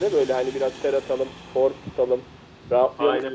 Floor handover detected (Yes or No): No